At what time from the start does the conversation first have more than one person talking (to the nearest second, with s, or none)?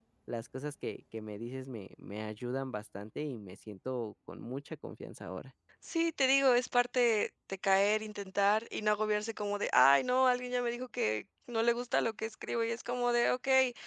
none